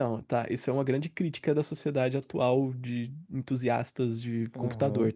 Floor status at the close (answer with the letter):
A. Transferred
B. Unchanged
A